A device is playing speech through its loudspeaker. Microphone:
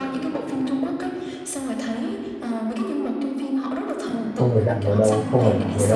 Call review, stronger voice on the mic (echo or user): user